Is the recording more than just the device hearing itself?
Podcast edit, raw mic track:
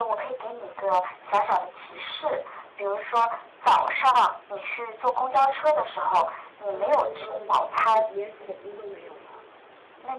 Yes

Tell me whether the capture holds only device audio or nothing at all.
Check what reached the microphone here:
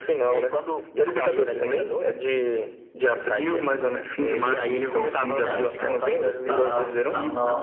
No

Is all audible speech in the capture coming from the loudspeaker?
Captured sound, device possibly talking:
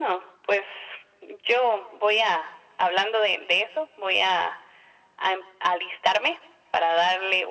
Yes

